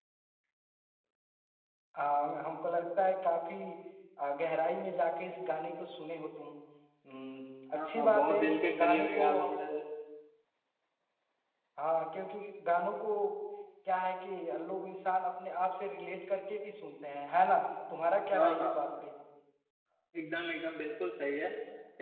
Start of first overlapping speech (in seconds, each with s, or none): 7.8 s